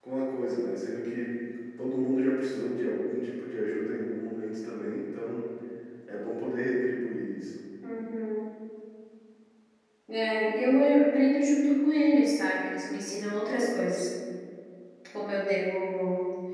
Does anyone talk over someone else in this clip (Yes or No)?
No